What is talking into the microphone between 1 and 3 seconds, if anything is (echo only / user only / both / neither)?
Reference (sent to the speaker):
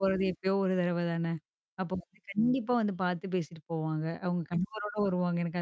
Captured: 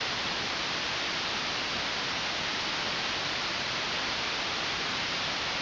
neither